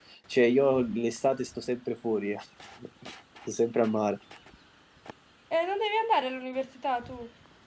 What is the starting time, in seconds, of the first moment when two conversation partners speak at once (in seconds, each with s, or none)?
none